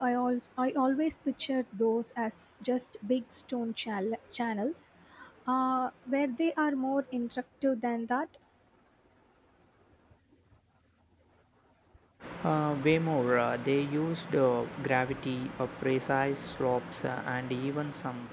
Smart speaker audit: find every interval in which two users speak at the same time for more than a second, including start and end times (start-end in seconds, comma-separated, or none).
none